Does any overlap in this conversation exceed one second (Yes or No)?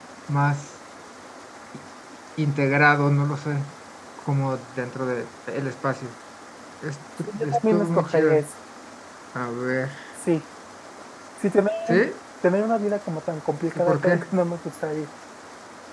Yes